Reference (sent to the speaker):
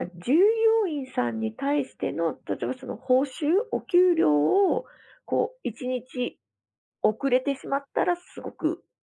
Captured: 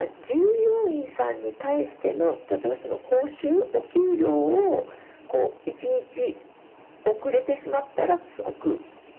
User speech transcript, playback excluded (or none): none